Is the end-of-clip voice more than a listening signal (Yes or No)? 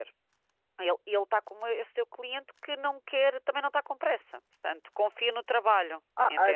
Yes